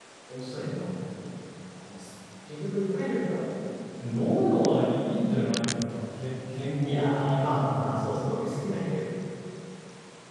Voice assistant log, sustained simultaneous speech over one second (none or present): present